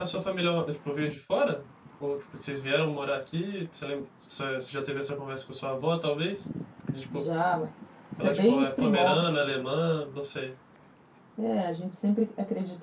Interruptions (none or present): present